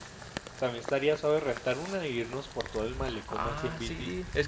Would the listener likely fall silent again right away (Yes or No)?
No